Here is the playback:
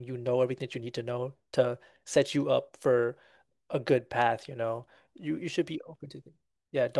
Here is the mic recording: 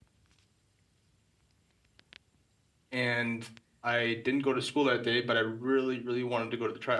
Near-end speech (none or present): present